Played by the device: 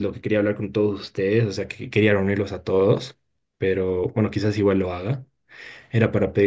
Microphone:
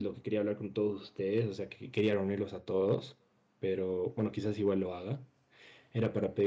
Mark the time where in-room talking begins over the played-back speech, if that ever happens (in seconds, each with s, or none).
none